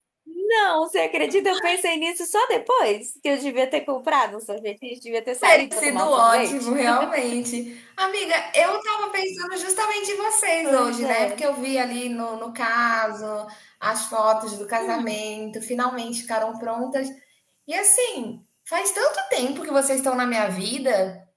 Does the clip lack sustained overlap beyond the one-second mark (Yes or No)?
No